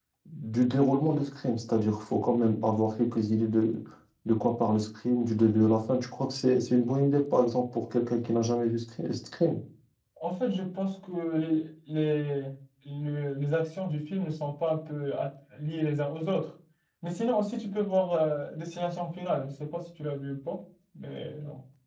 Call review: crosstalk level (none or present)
none